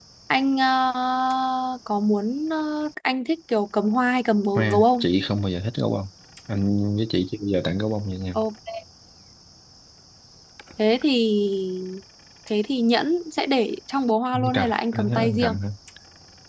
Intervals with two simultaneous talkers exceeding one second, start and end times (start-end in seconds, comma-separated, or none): 14.3-15.6